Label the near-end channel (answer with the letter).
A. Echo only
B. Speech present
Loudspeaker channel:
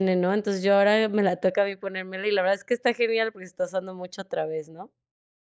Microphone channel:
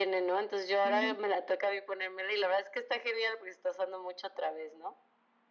B